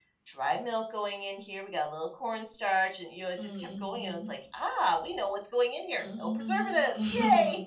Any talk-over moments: Yes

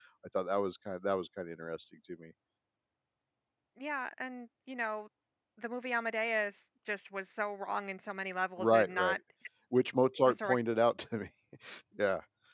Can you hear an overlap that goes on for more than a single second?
No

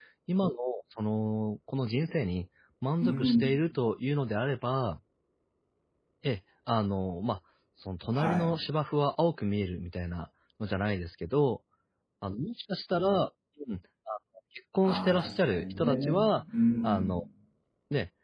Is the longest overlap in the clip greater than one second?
Yes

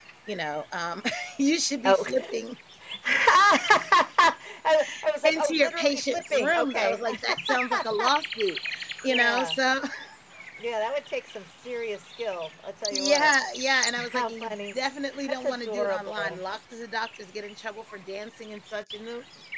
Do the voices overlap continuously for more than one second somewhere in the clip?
Yes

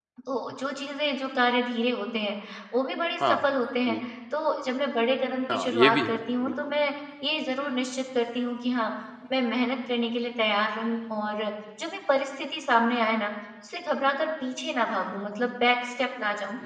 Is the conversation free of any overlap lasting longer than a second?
No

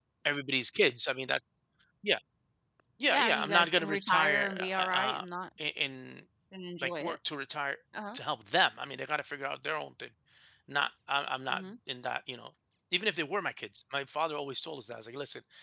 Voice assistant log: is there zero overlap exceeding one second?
No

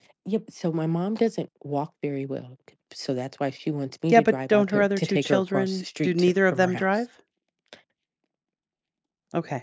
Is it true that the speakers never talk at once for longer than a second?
No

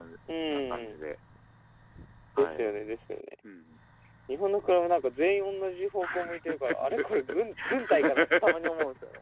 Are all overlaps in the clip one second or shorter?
No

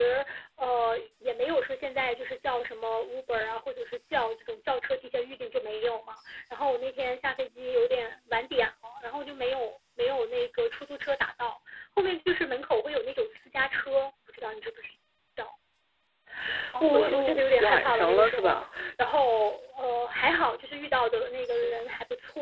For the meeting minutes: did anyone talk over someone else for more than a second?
Yes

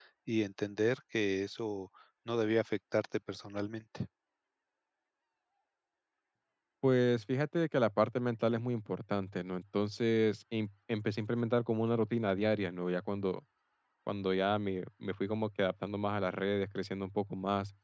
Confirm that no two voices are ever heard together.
Yes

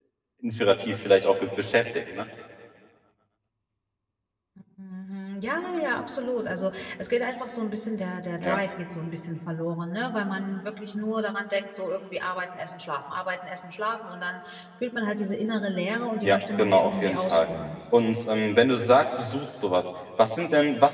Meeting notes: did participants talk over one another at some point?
Yes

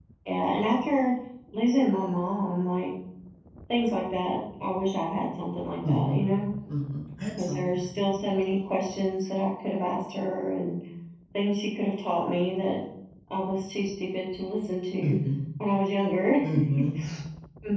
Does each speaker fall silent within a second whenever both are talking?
Yes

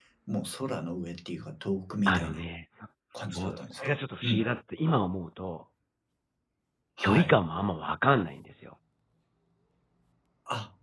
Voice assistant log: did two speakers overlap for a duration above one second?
Yes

